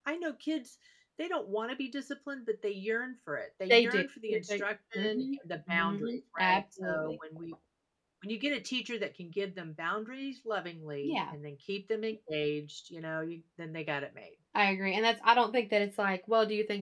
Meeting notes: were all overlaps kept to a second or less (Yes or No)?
No